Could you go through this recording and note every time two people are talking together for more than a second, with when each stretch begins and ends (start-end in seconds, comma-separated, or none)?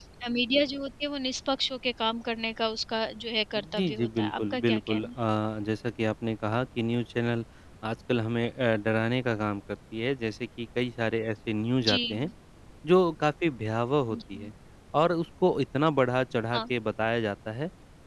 3.5-5.1